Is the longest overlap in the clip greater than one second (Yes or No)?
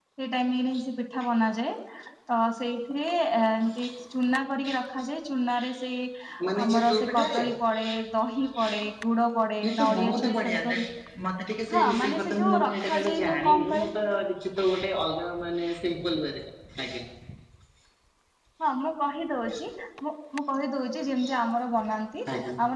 Yes